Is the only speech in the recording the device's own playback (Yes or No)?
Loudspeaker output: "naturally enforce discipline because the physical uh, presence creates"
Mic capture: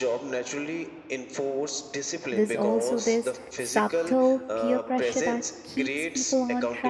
No